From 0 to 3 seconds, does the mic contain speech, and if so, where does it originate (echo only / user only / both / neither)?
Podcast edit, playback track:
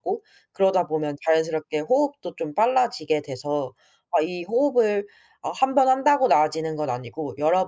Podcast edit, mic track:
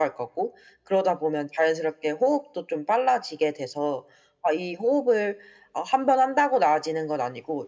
echo only